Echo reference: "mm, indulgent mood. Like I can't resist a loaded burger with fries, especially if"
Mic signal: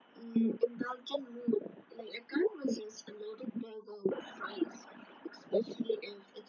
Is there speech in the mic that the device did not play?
No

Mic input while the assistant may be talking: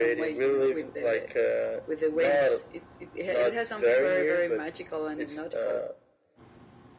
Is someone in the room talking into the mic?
No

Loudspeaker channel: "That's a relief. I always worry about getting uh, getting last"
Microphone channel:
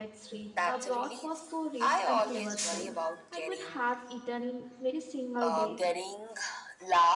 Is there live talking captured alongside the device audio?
Yes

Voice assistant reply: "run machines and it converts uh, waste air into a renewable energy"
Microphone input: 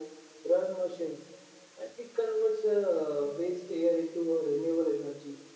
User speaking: No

